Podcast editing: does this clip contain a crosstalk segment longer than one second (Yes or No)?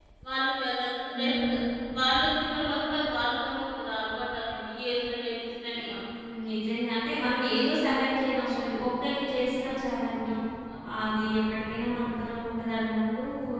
No